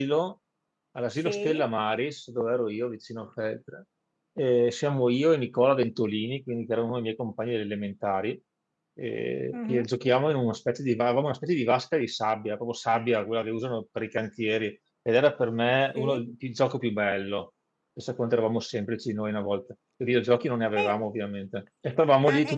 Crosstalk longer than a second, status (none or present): none